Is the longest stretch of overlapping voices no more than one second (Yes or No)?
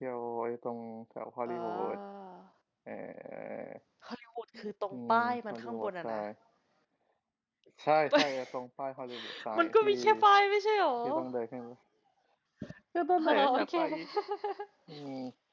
No